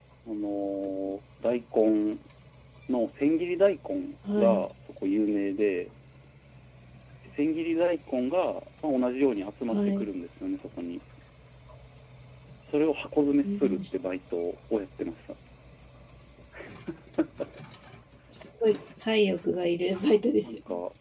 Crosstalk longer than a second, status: none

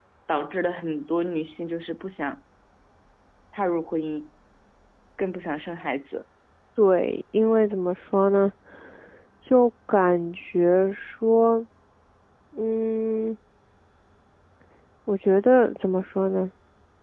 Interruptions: none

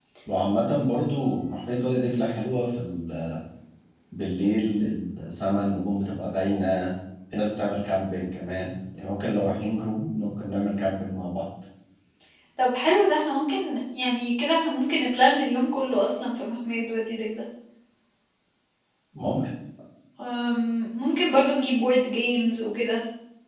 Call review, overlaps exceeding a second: none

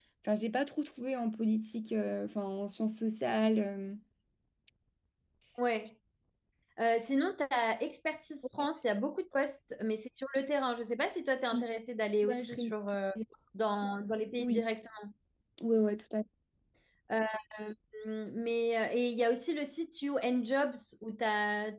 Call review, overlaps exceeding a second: none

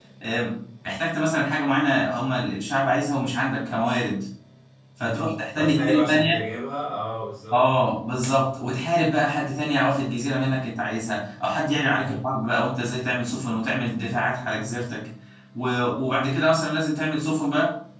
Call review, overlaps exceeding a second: present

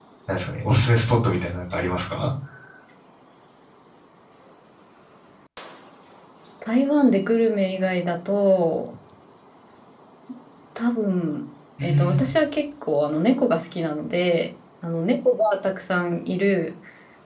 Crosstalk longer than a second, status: none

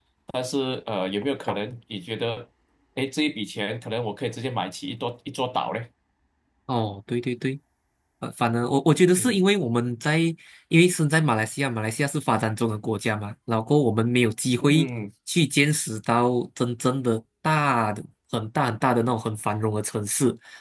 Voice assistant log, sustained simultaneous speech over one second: none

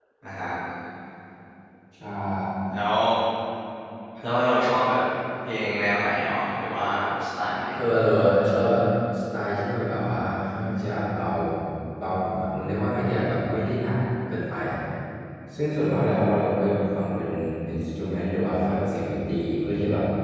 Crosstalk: none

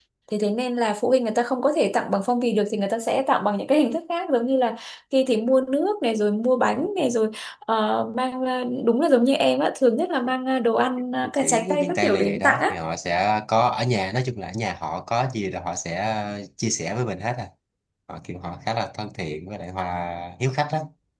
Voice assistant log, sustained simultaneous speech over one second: present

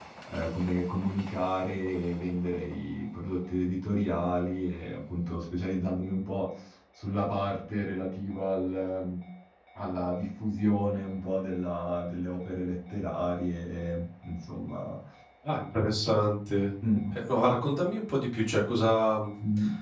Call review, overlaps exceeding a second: none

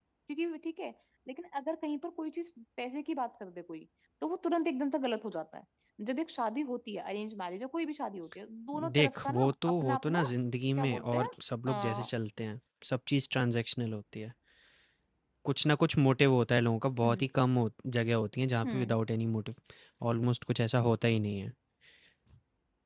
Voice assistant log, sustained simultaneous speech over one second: present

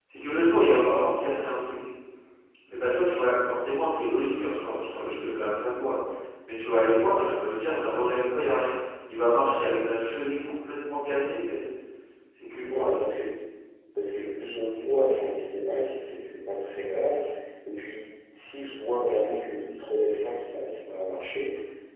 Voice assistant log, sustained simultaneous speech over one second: none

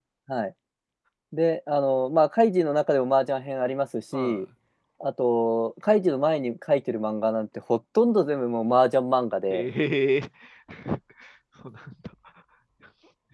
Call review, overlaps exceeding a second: none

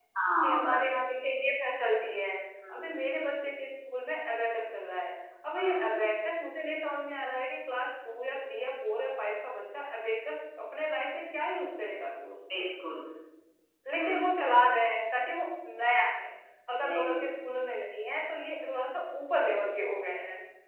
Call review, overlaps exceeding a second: none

